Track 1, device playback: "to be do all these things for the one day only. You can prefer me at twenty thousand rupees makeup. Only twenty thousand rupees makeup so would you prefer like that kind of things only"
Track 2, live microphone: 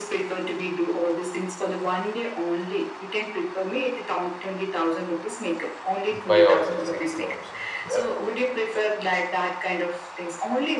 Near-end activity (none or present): present